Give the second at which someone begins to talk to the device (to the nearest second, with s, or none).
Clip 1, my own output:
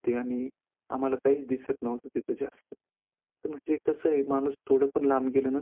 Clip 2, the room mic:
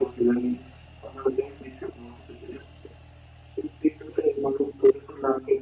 none